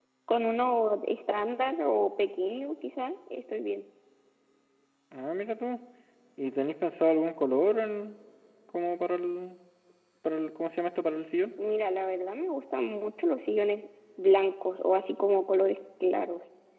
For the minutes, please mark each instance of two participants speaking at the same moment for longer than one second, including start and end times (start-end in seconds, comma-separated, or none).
none